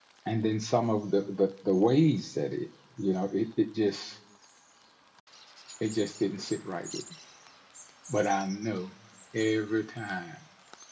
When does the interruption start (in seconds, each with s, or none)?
none